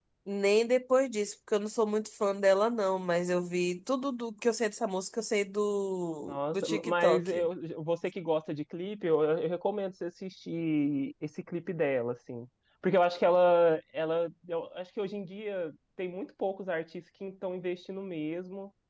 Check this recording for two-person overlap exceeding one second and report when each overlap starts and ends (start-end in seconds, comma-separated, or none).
6.2-7.5